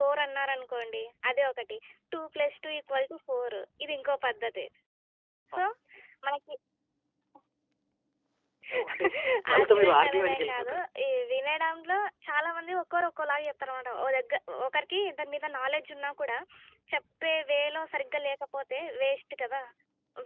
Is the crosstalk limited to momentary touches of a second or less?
No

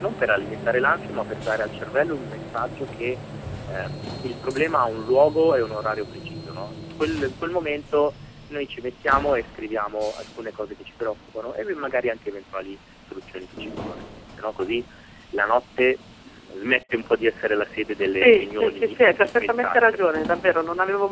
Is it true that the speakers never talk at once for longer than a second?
No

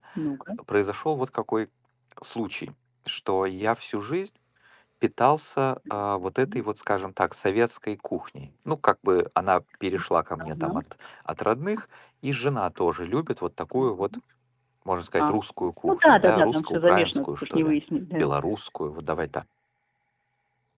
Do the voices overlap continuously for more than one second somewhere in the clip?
Yes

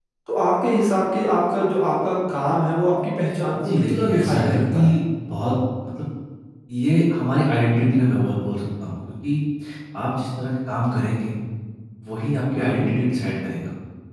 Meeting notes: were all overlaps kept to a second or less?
No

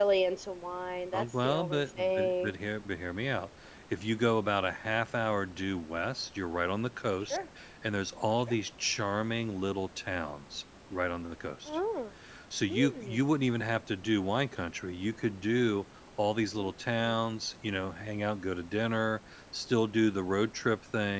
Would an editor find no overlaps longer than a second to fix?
No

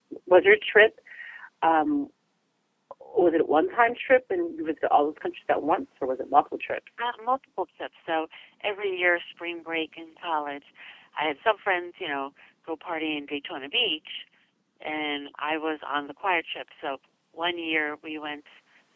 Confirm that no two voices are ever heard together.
Yes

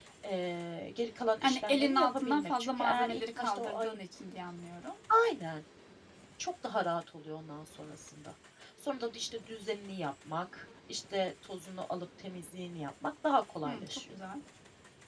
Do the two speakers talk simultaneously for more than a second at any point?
Yes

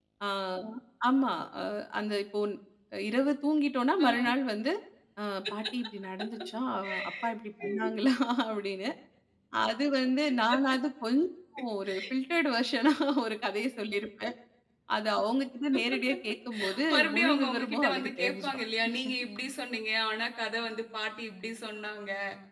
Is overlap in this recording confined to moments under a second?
No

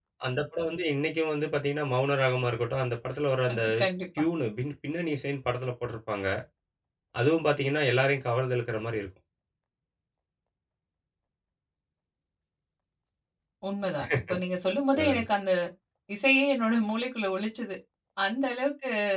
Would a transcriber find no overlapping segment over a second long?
Yes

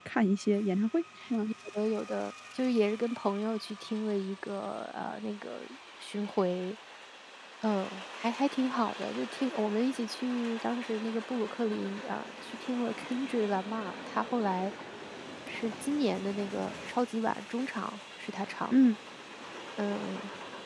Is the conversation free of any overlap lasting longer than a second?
Yes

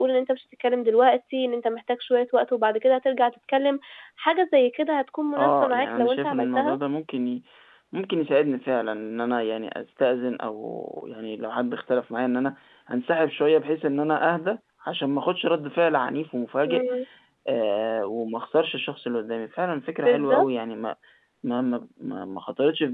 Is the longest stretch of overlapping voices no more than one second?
No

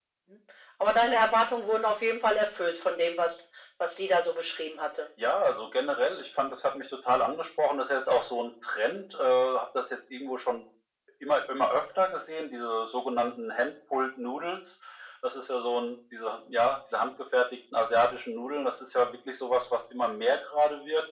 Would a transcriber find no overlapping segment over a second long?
Yes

